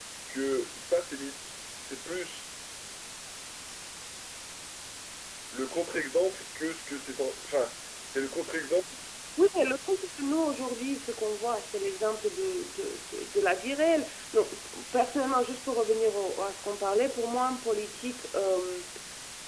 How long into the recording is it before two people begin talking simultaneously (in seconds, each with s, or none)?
none